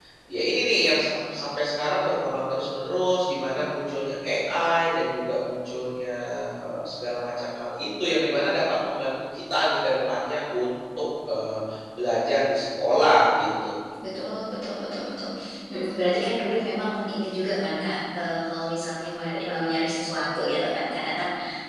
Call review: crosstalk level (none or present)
none